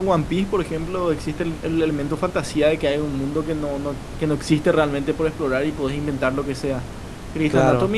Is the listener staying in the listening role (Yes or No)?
Yes